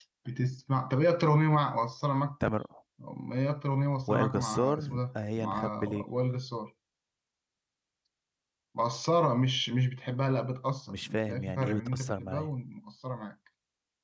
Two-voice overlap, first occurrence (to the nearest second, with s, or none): 4 s